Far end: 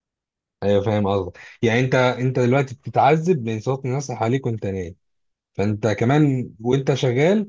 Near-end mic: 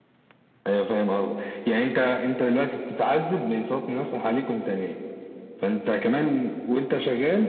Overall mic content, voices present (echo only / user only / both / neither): echo only